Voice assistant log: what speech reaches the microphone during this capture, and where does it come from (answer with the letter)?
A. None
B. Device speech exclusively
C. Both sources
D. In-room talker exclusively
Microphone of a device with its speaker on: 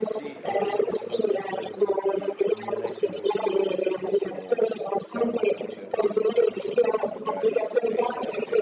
C